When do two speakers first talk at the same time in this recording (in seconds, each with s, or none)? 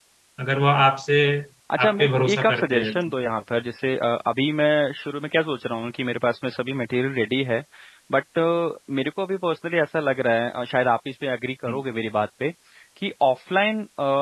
1.8 s